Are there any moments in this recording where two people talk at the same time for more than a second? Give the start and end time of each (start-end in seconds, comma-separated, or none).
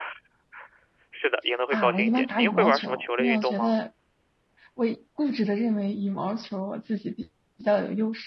1.7-3.8